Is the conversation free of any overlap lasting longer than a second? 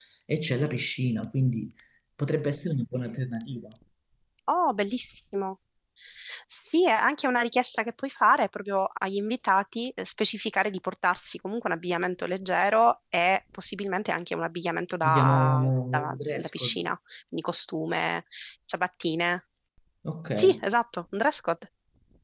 No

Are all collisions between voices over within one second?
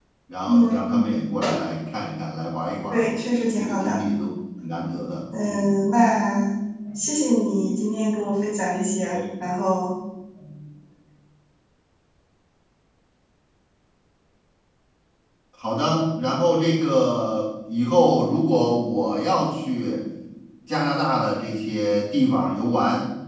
Yes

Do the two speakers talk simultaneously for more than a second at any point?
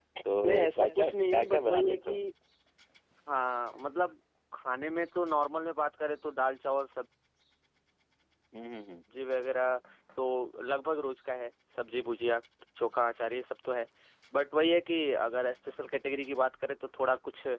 Yes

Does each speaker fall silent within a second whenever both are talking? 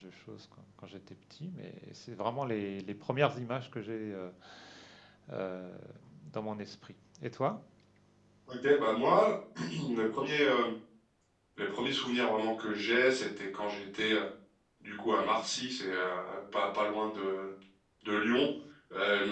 Yes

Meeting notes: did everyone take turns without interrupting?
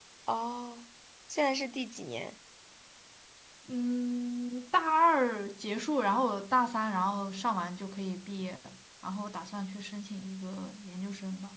Yes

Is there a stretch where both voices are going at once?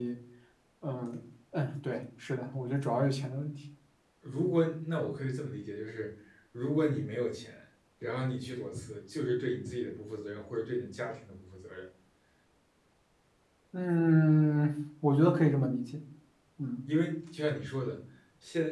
No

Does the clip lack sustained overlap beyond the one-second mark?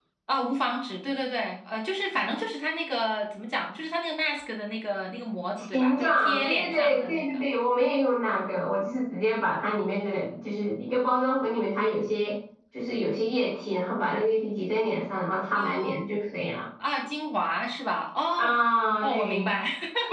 No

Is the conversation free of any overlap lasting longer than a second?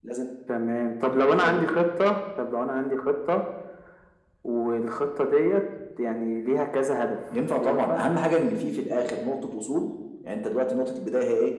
Yes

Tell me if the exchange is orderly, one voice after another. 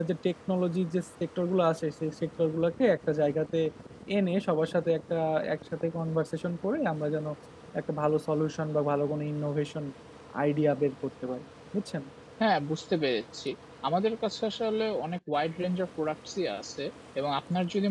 Yes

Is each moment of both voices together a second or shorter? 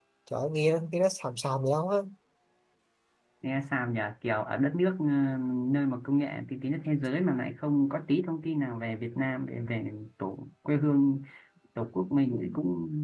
Yes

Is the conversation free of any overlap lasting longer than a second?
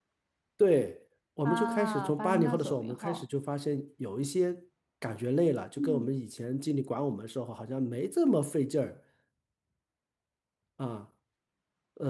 No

